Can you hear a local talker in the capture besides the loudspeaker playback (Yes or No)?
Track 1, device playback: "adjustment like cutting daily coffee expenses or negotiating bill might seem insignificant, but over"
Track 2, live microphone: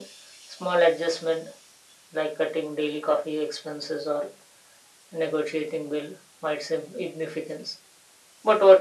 No